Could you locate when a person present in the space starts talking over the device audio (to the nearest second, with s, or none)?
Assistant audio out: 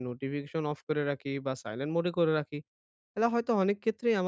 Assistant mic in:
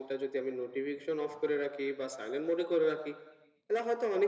none